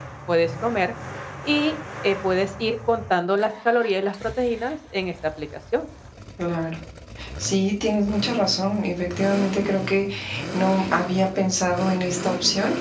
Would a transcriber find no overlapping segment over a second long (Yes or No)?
Yes